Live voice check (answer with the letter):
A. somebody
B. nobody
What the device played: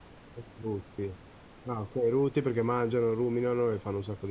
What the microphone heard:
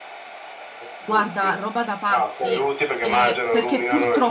A